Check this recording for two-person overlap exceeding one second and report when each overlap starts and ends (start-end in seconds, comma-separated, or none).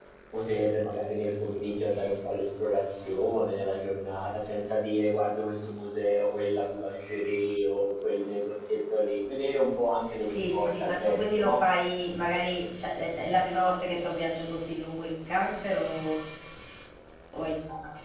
10.1-11.6